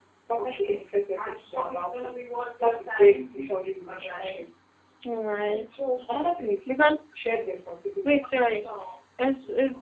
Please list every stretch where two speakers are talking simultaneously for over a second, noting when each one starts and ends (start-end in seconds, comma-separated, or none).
none